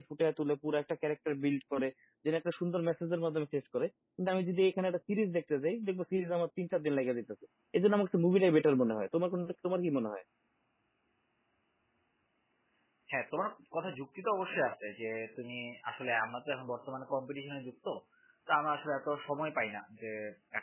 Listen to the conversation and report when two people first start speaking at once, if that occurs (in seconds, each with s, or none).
none